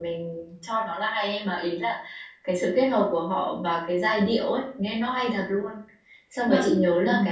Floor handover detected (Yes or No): No